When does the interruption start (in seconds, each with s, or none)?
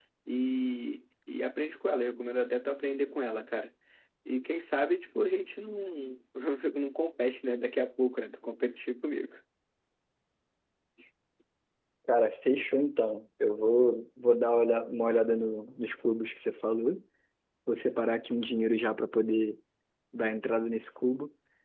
none